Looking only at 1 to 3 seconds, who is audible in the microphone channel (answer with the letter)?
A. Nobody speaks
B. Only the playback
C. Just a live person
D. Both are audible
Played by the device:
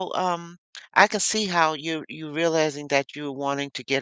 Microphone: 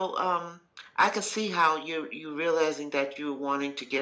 B